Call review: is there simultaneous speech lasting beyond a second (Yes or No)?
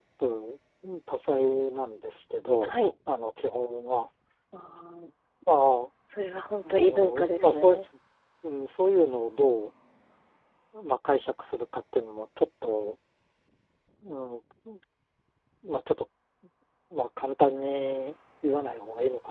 Yes